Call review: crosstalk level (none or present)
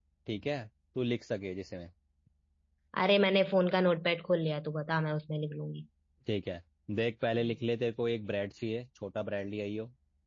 none